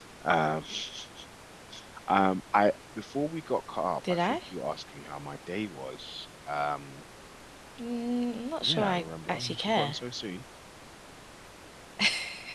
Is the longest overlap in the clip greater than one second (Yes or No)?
Yes